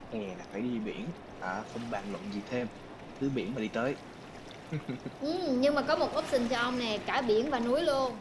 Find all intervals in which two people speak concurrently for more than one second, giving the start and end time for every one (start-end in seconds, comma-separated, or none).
none